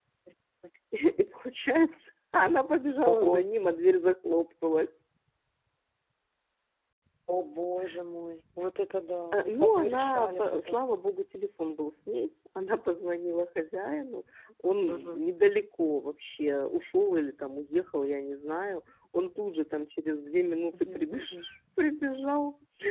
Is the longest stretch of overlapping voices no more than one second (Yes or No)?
No